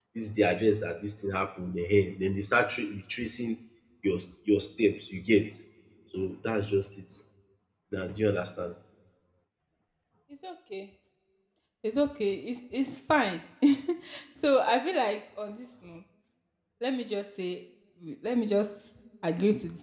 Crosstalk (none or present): none